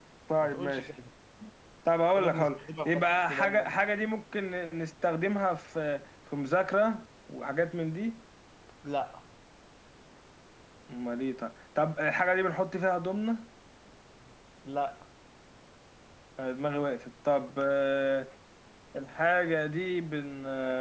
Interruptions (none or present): present